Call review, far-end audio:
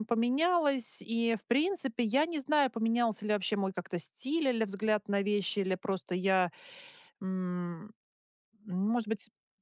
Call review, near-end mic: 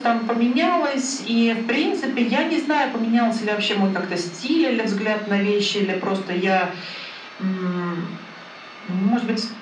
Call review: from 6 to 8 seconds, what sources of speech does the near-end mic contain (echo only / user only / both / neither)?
echo only